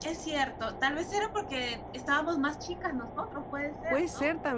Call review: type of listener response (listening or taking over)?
taking over